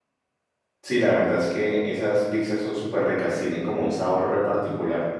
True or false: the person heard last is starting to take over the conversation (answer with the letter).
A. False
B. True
B